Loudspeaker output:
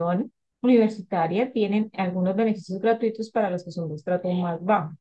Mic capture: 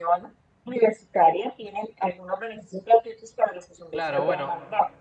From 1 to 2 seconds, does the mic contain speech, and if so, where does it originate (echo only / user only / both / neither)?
echo only